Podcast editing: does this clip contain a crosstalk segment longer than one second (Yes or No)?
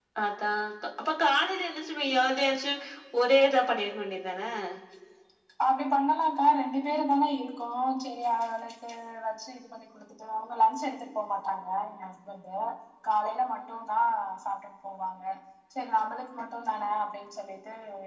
No